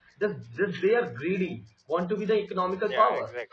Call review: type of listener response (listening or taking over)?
taking over